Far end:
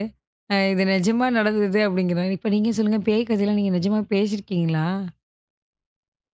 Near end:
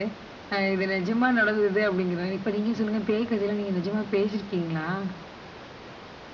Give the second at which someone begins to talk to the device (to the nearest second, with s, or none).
none